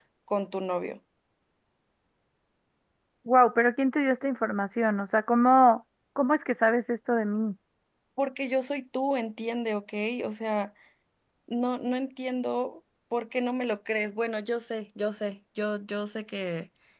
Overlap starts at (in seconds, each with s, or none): none